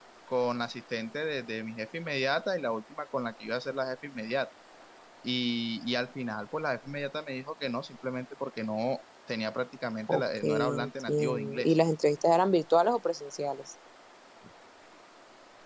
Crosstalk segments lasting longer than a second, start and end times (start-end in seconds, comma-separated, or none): 10.1-11.8